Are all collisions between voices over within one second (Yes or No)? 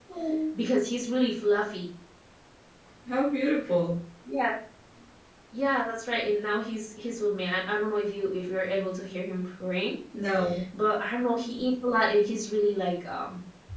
Yes